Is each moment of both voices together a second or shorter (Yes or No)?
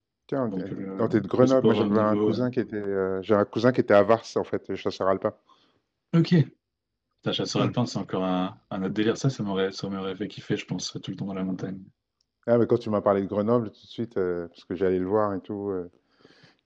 No